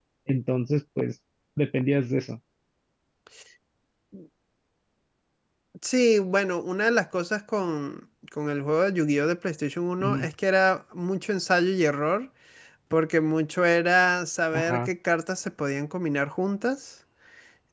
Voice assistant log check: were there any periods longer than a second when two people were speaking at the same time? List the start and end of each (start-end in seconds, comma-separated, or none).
none